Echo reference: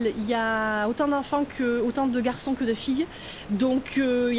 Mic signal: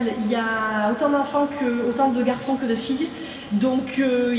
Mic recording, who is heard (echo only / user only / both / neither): echo only